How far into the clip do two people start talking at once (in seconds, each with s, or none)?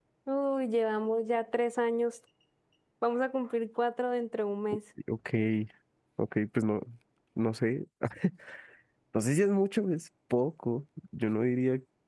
none